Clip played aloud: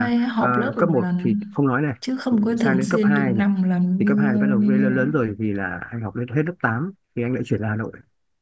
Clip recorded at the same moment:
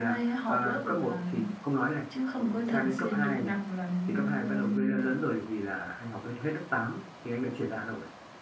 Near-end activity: none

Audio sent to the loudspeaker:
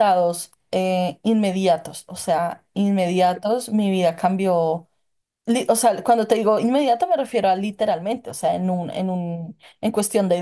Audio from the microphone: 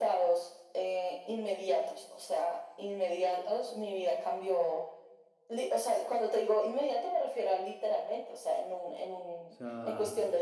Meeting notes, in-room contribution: present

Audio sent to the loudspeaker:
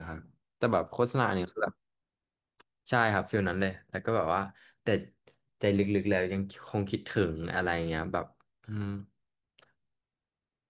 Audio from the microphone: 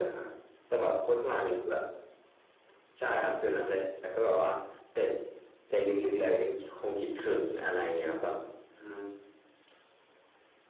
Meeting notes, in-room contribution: none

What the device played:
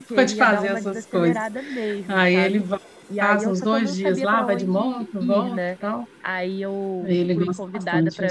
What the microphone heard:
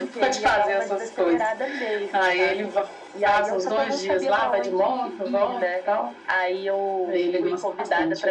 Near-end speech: none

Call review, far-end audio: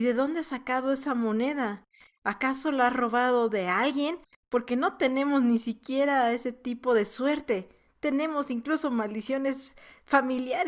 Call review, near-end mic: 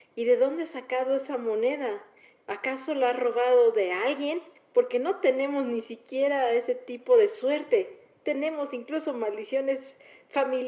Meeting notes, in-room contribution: none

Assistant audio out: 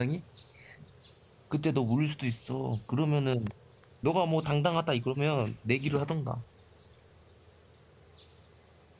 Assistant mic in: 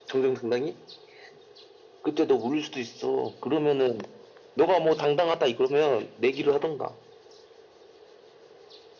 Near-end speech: none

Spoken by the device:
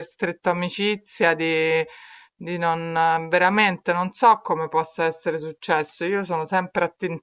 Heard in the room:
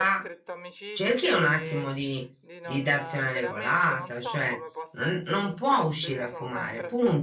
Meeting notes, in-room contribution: present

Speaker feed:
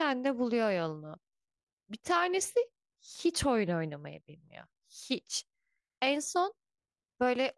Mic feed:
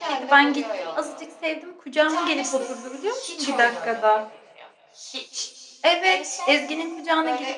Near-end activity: present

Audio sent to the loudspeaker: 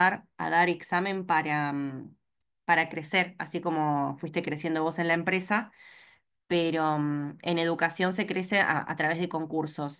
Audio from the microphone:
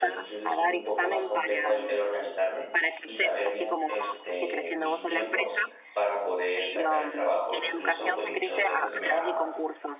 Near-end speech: present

